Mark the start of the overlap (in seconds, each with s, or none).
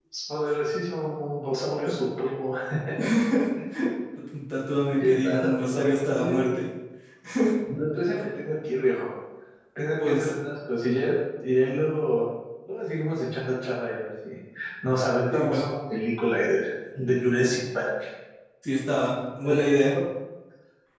4.9 s